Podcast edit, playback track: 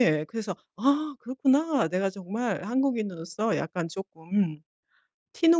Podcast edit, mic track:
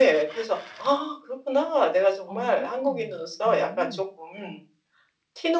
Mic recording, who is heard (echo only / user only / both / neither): both